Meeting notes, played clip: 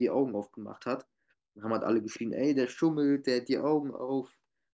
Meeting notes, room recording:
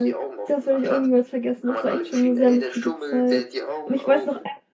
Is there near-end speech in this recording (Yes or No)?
Yes